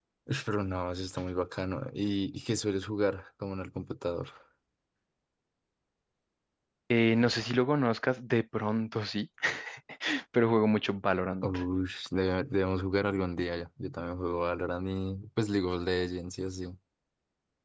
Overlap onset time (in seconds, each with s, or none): none